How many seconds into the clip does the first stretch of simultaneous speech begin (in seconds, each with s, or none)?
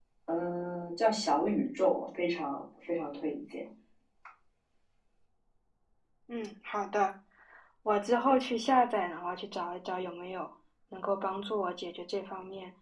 none